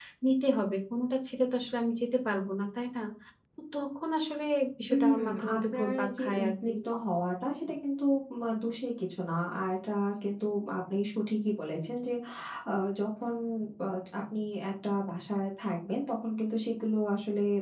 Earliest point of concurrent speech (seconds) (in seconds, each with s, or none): 4.9 s